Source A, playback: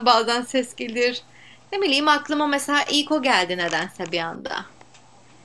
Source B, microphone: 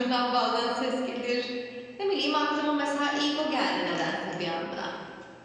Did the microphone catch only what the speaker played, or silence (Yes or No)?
Yes